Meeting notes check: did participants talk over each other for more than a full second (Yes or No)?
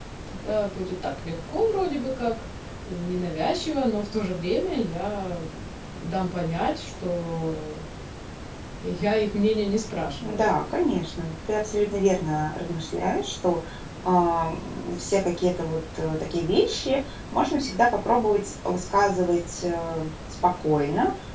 No